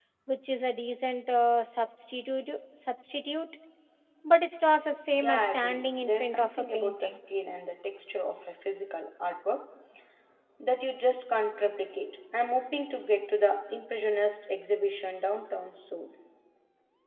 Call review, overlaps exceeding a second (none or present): present